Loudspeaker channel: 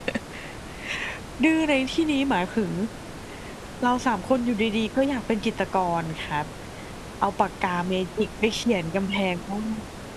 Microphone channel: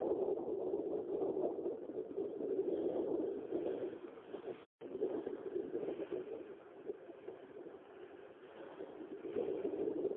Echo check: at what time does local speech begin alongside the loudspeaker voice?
none

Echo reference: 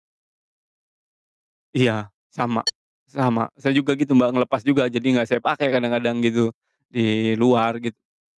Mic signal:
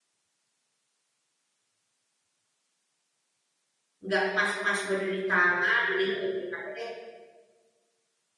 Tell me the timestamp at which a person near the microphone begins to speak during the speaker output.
4 s

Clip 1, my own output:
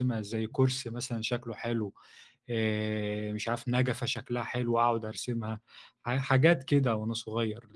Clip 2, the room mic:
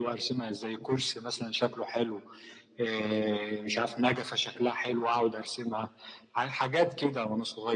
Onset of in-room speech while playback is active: none

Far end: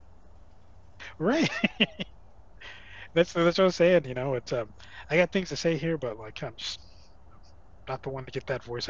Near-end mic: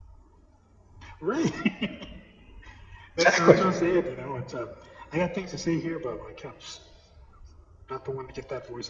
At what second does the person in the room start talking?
3 s

